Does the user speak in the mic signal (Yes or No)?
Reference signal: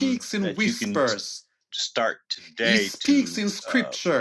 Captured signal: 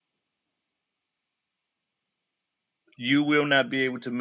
Yes